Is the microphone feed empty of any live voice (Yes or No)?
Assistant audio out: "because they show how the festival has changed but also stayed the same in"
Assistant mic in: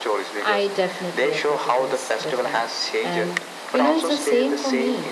No